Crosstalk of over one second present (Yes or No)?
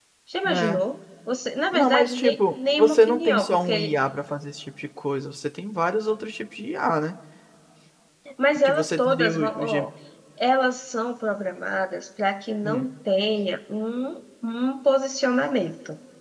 Yes